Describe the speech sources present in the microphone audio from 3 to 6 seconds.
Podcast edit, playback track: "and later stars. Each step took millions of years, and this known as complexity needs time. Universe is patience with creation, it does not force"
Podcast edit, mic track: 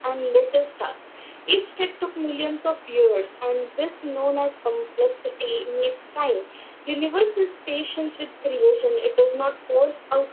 echo only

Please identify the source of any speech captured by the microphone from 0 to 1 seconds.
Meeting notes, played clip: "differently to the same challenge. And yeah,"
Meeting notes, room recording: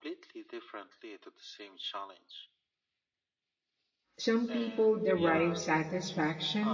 echo only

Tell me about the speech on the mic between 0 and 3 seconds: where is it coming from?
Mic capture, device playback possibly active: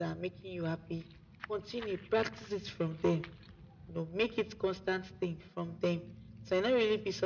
echo only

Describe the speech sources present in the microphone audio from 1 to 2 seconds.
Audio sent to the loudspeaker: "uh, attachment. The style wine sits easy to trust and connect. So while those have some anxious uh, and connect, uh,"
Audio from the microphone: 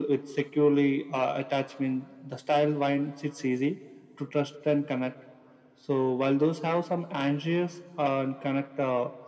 echo only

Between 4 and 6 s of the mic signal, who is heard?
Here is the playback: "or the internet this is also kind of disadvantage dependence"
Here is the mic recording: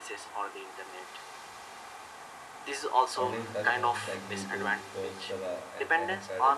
both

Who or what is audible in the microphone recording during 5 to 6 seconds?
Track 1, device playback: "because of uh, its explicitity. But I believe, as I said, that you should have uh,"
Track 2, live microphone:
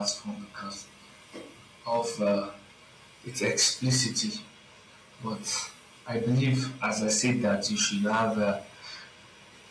echo only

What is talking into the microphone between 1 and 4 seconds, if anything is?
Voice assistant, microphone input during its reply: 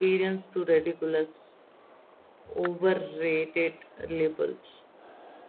user only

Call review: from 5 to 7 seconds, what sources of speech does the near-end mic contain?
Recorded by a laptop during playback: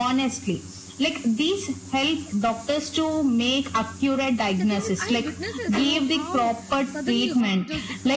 both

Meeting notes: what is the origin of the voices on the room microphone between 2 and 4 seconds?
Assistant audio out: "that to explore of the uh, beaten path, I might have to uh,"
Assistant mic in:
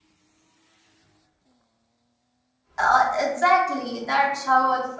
user only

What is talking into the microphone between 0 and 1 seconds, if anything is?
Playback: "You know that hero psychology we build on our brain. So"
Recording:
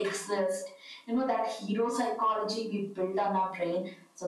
echo only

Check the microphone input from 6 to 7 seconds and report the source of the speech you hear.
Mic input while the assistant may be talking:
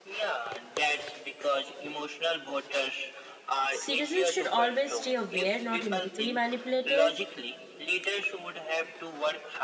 both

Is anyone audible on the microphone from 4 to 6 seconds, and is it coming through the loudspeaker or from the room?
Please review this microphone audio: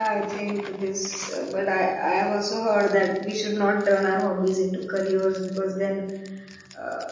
user only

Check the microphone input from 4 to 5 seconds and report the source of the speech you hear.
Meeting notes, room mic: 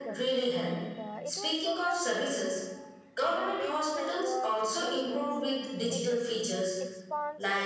both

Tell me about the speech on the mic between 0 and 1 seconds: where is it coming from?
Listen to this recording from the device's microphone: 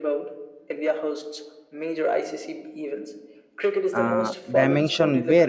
echo only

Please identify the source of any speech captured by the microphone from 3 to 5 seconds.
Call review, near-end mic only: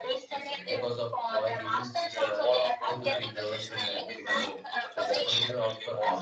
both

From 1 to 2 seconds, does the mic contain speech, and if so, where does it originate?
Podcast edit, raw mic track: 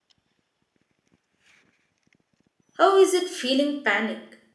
neither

